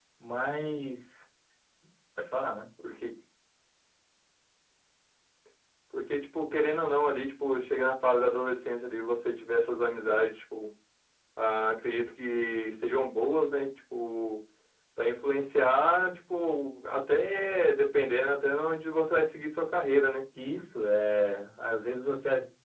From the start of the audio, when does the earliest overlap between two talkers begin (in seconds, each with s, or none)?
none